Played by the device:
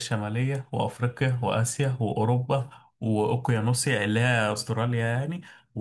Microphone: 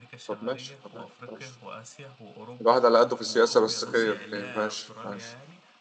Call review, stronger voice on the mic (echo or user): user